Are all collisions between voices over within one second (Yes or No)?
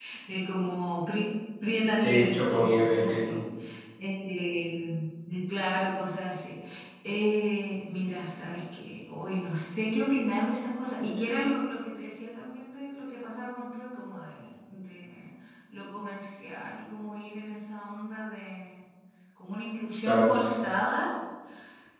No